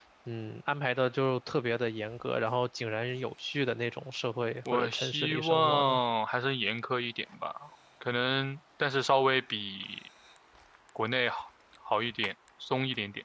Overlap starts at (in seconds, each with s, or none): 4.7 s